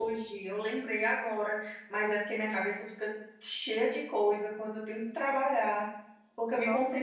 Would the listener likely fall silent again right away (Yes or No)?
Yes